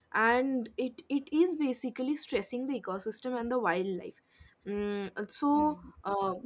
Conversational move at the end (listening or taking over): taking over